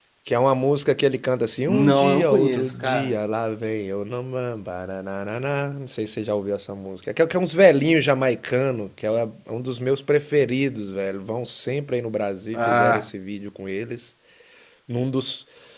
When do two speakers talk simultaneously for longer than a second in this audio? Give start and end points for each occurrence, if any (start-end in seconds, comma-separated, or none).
1.7-3.1